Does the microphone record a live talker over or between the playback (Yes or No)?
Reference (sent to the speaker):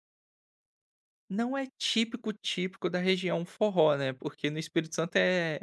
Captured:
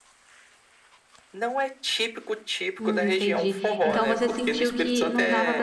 Yes